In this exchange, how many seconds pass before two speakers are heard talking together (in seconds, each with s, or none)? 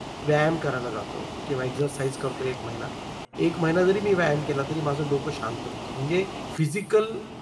none